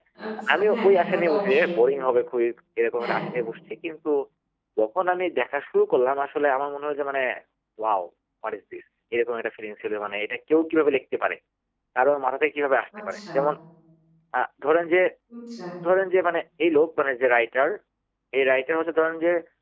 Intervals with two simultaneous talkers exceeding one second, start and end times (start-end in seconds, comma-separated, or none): 0.5-1.8